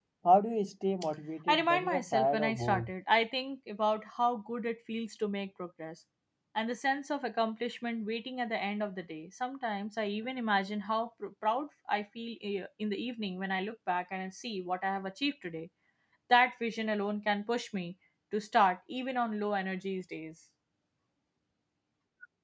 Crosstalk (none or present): present